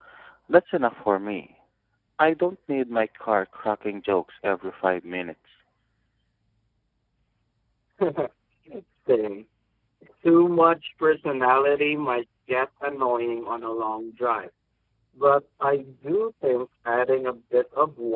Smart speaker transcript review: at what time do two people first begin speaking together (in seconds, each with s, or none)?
none